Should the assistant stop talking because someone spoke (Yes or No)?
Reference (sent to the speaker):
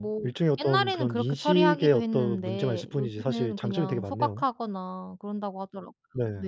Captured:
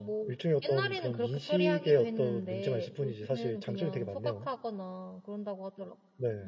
No